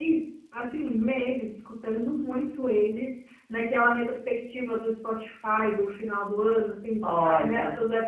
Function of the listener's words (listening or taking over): listening